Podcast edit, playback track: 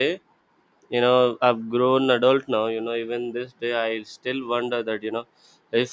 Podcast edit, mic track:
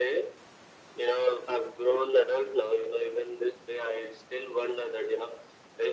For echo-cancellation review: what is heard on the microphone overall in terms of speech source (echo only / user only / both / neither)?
echo only